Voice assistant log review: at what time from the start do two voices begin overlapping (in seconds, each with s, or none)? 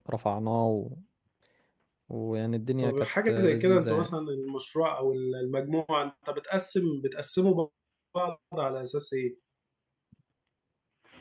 2.8 s